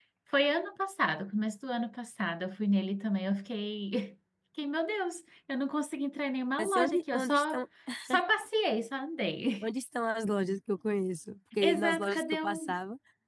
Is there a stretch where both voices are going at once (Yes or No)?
Yes